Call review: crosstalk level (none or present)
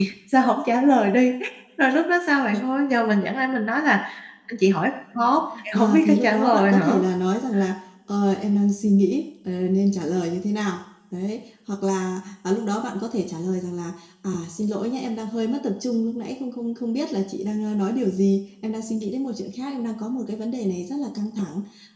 present